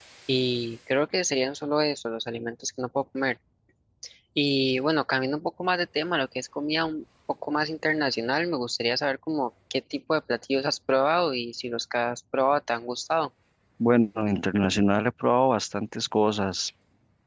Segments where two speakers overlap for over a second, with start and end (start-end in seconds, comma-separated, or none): none